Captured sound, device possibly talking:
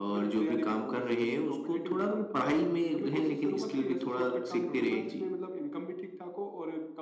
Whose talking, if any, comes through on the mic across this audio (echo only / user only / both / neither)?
echo only